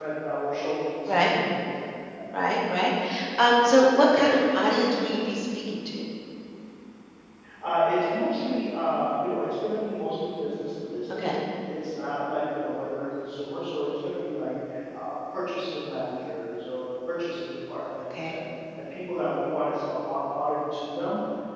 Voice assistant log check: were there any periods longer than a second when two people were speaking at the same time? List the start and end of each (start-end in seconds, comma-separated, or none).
none